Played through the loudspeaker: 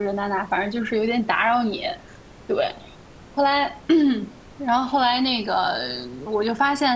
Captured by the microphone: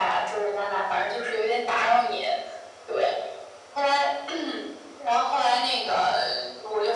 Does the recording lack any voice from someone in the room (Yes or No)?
Yes